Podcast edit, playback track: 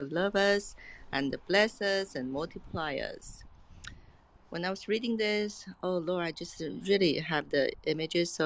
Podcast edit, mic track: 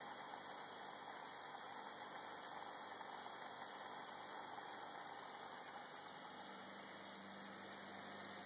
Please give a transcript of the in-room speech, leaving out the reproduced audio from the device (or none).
none